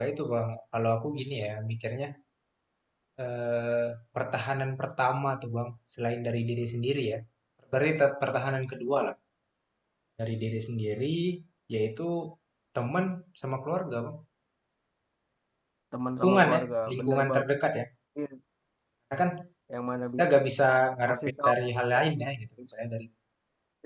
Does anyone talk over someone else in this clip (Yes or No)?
Yes